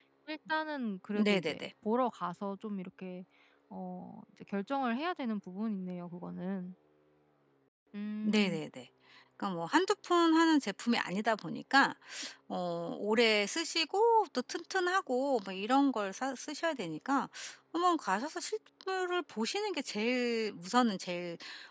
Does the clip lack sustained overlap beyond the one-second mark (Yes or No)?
Yes